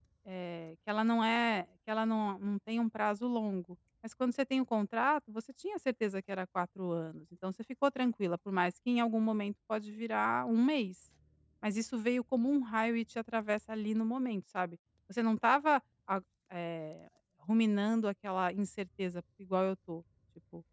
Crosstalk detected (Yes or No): No